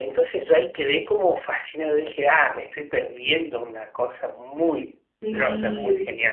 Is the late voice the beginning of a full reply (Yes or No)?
Yes